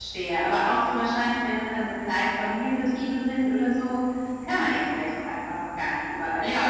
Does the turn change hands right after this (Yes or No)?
Yes